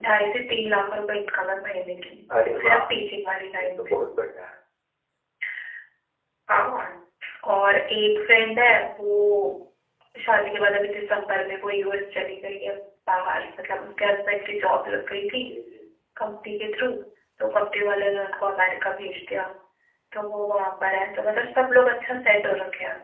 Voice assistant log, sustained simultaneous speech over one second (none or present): none